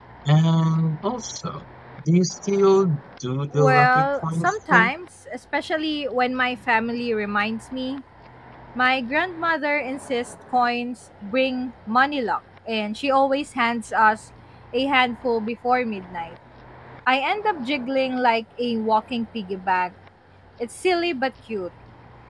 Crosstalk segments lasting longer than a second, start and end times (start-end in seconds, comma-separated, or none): 3.5-4.9